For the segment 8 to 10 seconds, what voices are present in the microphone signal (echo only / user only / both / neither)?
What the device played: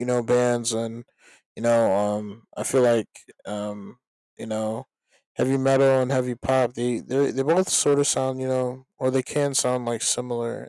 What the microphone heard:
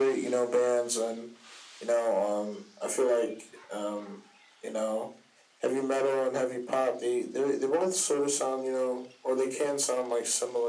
echo only